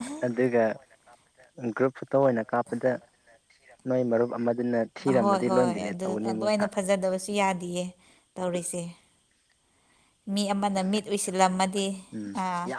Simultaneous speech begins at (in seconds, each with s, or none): 5.0 s